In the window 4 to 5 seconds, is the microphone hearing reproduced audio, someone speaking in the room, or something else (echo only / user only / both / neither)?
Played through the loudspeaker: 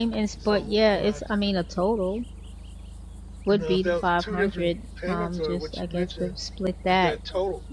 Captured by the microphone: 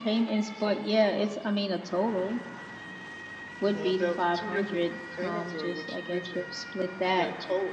echo only